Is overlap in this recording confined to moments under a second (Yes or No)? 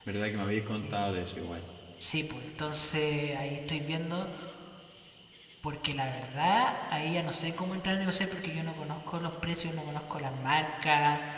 Yes